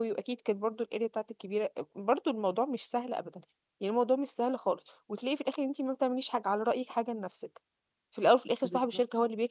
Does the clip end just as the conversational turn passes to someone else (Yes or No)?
No